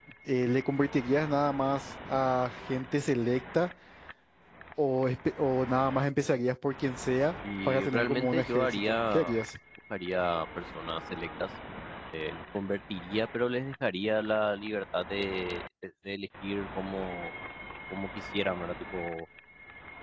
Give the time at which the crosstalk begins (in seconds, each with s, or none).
7.4 s